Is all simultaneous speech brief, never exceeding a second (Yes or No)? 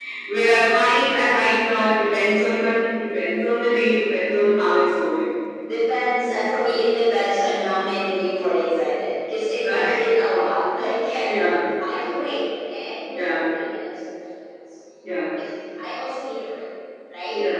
Yes